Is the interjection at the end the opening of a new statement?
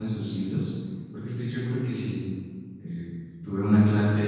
No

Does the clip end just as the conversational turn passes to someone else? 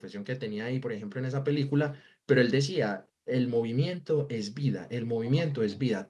No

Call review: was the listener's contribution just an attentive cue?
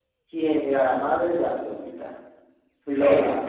Yes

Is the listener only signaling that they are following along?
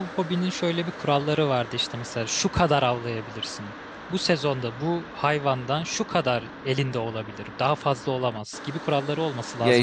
No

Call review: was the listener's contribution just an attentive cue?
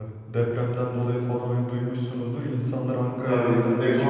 No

